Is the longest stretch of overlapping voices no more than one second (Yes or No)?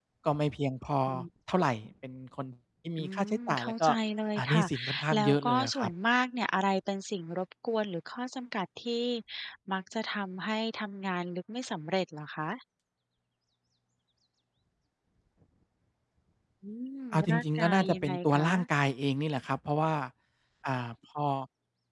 No